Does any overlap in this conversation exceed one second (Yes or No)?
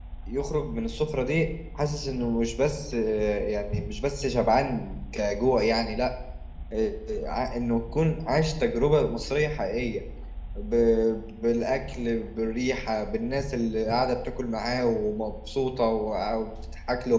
No